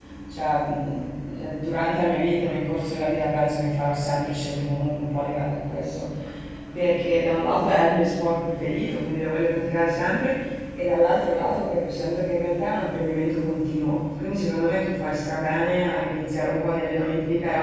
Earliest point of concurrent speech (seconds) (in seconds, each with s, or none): none